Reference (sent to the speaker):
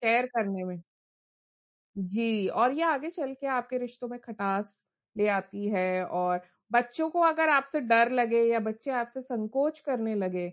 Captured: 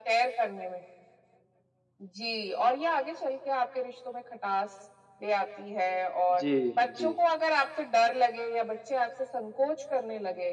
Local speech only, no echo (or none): जी, जी।